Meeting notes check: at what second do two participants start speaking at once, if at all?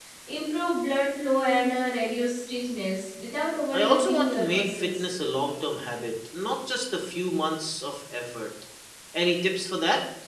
3.7 s

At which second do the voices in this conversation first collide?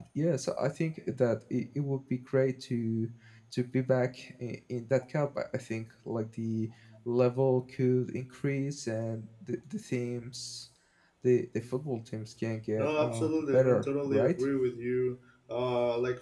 12.8 s

